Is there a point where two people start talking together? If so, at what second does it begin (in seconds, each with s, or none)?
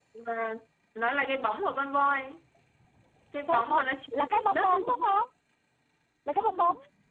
3.5 s